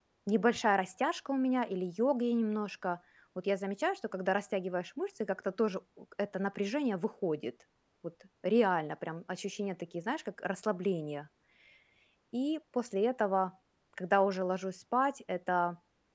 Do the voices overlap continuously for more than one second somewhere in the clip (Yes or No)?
No